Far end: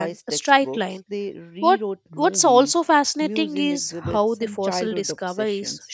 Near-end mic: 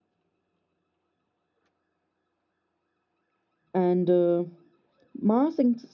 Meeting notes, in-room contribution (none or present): present